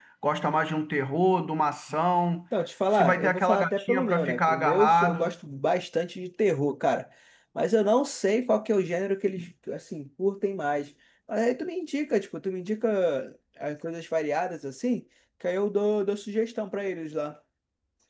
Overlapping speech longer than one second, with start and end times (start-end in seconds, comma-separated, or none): 2.9-5.3